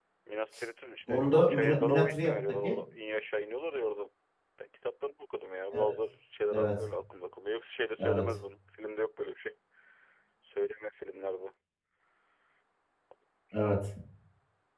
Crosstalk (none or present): present